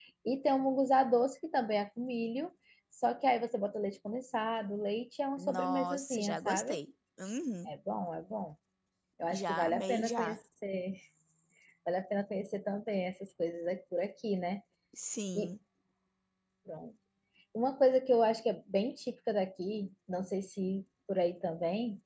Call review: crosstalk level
present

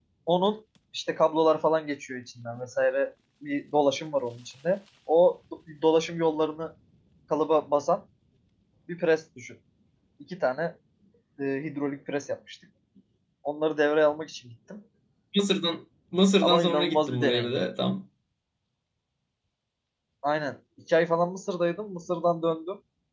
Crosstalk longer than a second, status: present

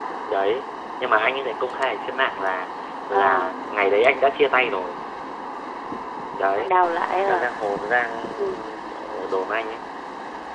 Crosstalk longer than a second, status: none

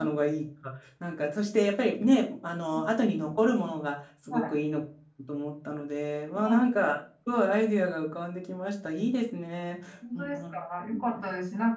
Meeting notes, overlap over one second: none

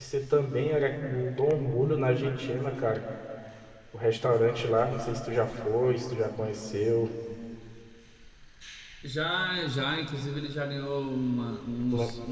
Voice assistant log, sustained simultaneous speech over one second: none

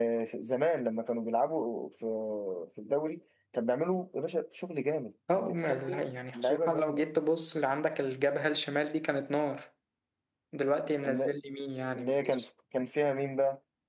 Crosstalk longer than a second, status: present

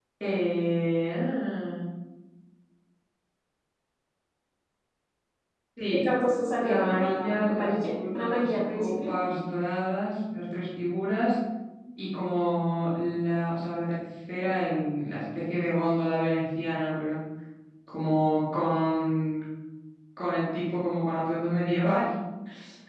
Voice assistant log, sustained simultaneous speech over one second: present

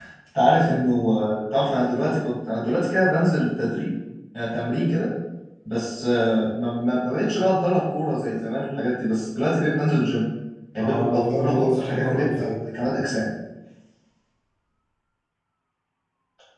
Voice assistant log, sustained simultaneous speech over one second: present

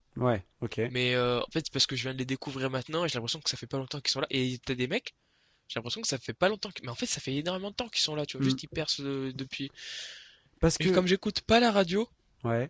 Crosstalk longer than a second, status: none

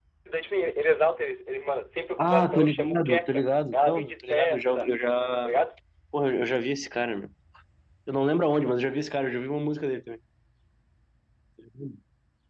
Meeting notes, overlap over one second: present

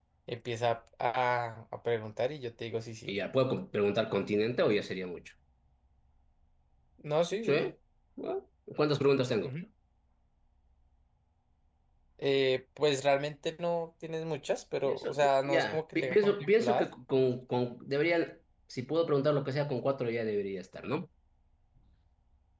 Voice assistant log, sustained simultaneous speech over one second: present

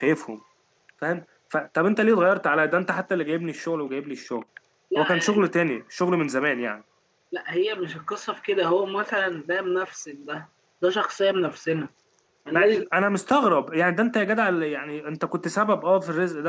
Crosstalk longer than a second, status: none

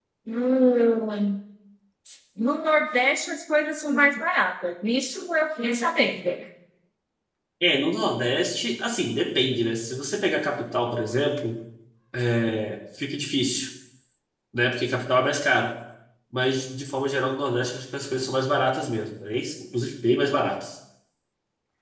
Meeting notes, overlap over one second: none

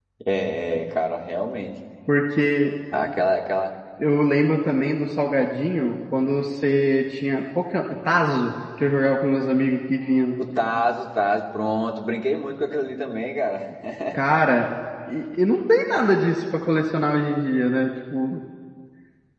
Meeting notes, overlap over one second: none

